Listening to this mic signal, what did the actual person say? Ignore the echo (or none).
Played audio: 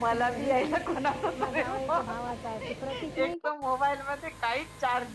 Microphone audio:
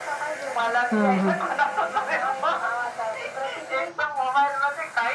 हा हा.